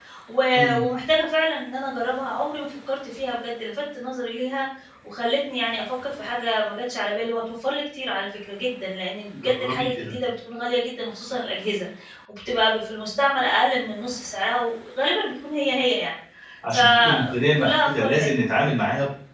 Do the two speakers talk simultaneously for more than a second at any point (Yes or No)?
Yes